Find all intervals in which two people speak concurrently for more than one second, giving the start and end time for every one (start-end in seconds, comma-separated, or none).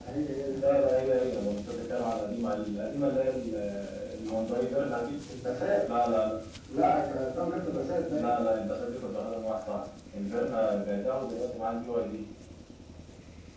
none